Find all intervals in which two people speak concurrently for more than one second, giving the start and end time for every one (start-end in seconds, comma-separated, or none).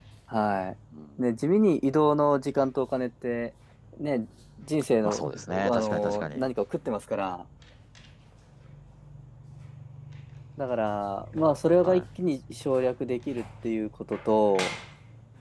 5.0-6.5